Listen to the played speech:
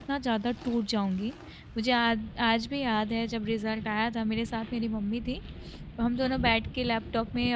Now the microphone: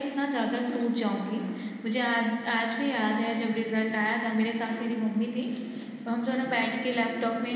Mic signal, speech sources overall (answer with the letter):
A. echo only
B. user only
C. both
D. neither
A